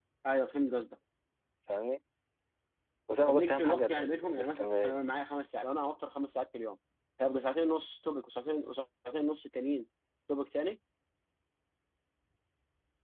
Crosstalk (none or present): present